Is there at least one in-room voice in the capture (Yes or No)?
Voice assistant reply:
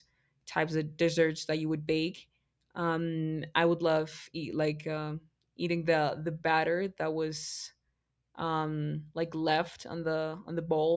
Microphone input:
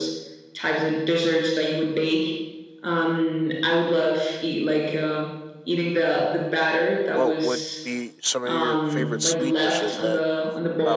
Yes